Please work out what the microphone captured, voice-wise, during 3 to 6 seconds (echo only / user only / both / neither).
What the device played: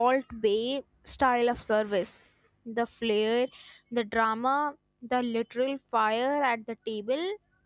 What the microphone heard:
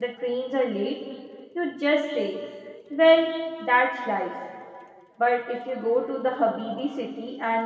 user only